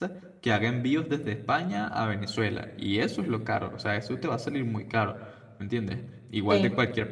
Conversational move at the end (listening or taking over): listening